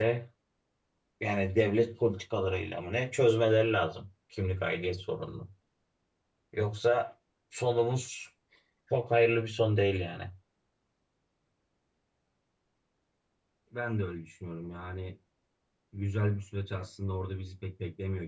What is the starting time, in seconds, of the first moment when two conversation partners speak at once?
none

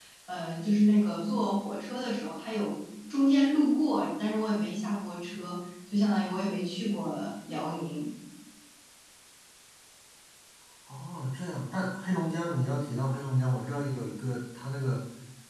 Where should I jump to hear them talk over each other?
none

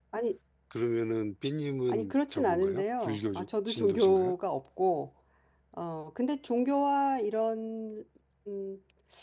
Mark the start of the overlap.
2 s

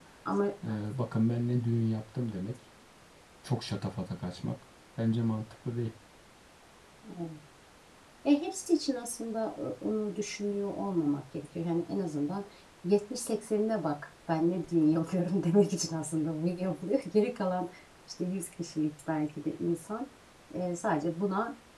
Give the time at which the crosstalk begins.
none

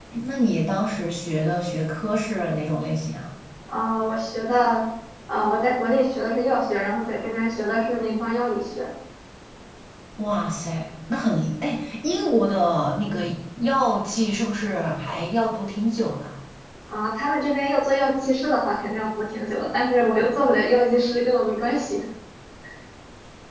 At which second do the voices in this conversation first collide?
none

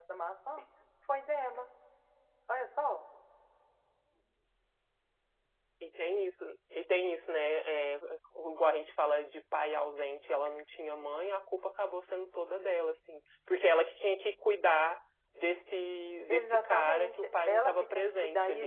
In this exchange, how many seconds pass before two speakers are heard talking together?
16 s

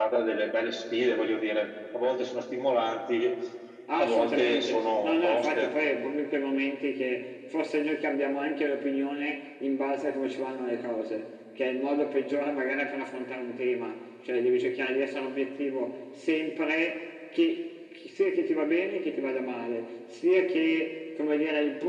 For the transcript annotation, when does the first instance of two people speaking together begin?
4 s

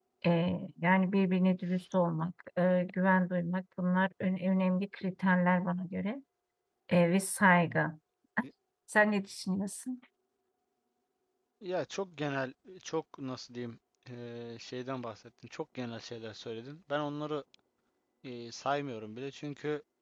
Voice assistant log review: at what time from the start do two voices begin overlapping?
none

